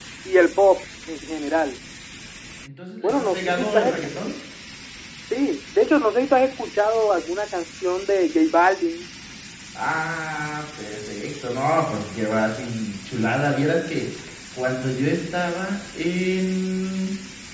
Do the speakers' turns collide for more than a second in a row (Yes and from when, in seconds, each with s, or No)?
Yes, from 3.0 s